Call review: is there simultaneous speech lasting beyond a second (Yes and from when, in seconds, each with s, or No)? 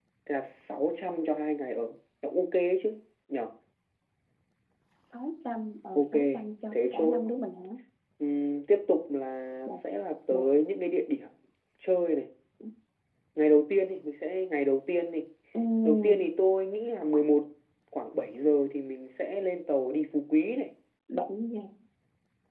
No